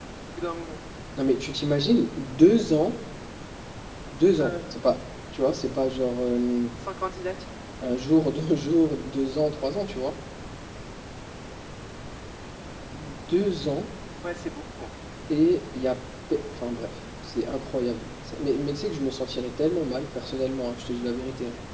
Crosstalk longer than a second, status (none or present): none